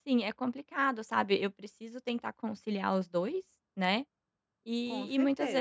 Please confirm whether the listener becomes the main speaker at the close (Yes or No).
No